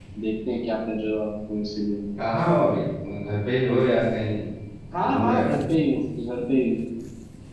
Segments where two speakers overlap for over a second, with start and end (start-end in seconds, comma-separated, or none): none